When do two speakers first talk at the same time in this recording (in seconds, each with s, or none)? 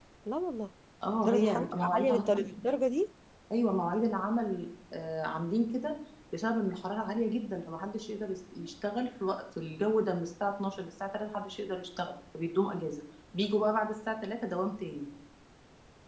1.2 s